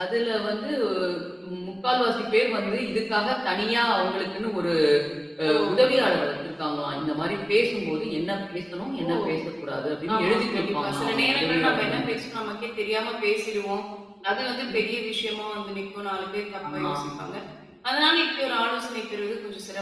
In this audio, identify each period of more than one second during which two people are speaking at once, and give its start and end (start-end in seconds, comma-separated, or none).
10.2-12.1